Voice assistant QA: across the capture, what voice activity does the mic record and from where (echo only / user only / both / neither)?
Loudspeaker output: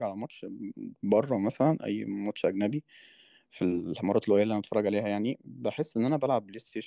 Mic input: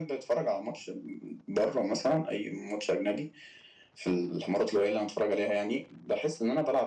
echo only